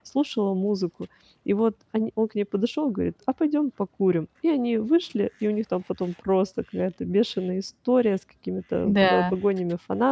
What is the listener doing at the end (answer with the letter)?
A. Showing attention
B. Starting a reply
A